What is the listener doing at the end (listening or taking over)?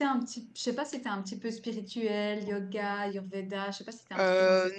taking over